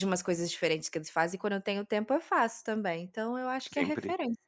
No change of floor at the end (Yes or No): No